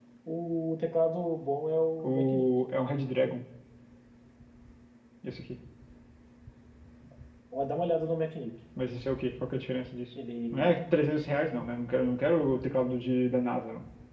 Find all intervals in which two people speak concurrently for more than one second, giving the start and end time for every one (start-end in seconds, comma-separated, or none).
none